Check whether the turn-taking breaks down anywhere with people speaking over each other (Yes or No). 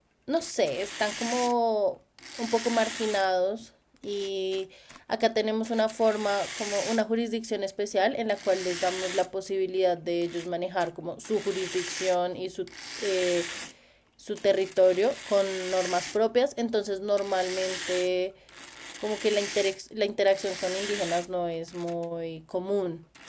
No